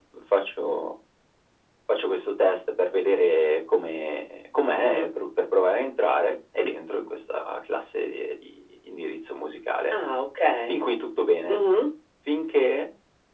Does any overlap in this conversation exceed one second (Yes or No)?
No